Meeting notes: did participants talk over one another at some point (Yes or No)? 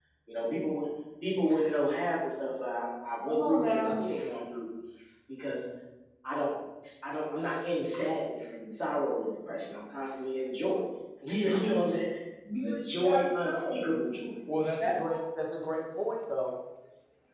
Yes